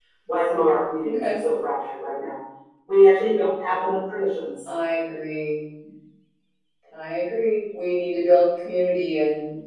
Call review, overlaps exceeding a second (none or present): none